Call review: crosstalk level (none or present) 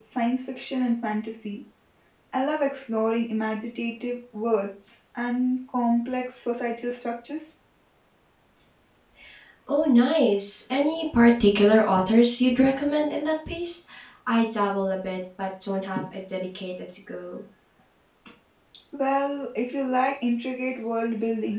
none